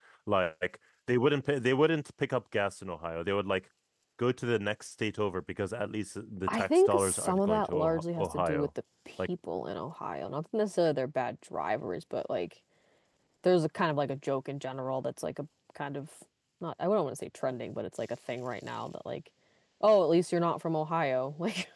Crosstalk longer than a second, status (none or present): present